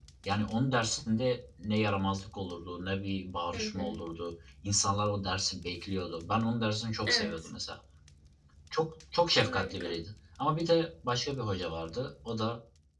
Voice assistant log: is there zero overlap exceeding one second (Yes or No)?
Yes